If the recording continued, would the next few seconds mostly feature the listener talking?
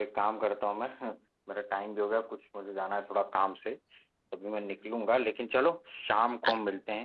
No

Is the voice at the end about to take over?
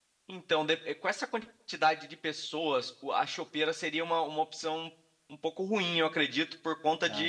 No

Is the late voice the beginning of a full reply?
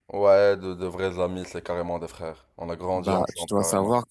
Yes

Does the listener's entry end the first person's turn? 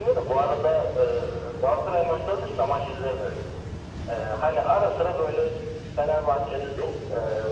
No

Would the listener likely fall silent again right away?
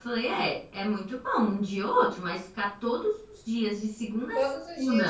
No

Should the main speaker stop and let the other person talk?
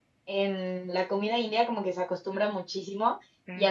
No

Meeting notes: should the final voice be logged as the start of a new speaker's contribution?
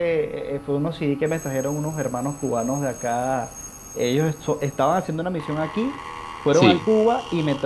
No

